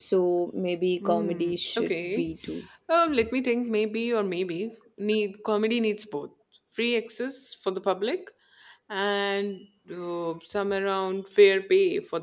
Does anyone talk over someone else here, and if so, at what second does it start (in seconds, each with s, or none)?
1.0 s